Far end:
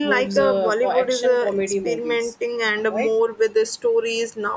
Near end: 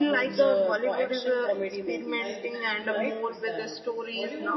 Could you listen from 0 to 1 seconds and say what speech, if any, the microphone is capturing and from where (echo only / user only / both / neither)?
both